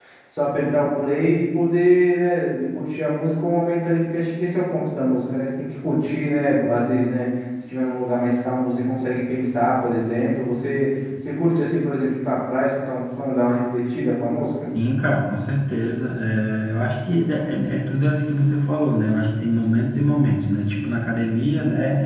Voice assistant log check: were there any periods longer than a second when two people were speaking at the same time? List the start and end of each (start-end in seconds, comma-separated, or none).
none